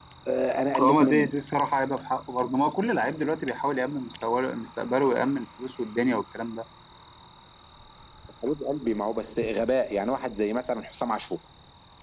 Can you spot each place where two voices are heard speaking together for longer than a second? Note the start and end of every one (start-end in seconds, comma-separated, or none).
none